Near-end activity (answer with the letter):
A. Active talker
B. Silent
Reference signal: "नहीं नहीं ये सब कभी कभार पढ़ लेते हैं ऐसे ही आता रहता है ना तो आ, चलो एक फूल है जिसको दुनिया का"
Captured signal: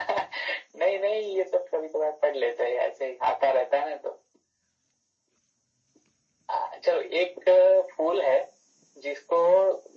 B